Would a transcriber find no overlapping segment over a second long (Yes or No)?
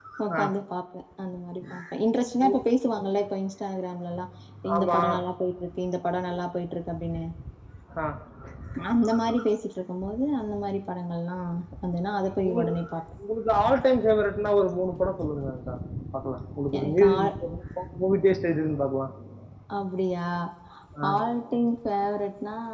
Yes